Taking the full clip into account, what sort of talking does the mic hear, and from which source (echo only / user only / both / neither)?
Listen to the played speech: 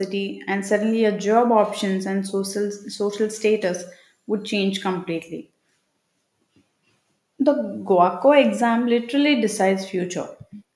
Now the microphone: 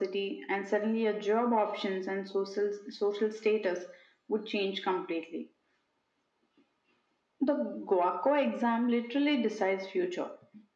echo only